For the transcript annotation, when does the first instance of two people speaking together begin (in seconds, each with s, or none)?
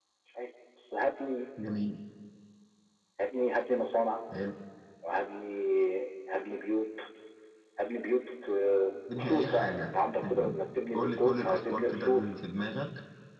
9.2 s